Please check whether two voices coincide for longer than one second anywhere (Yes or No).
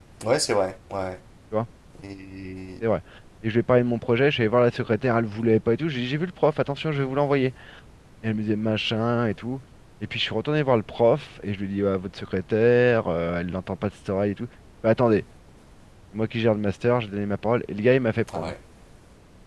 No